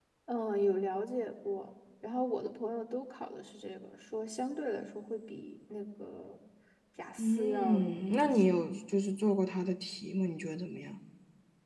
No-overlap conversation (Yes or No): No